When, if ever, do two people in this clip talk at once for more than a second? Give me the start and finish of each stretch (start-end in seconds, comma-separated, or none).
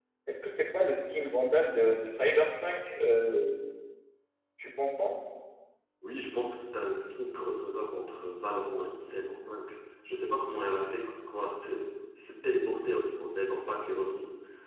none